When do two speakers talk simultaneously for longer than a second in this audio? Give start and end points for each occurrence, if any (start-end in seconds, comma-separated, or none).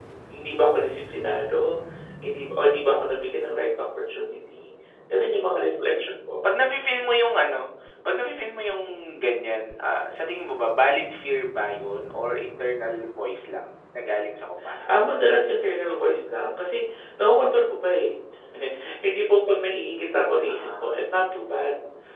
none